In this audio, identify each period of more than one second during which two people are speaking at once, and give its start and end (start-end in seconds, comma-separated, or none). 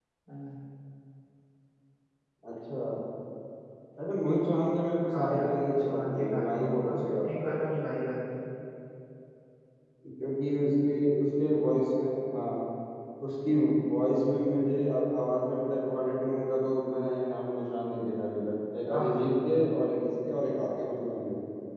5.1-7.5